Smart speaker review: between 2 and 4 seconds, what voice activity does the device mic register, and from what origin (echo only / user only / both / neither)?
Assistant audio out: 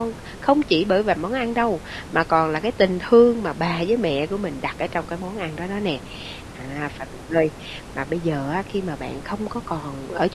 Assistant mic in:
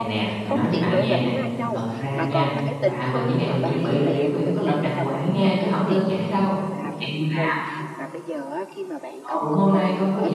both